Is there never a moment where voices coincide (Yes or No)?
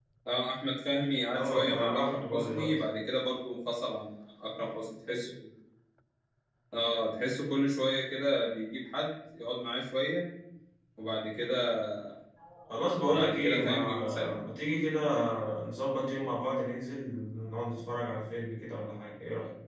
No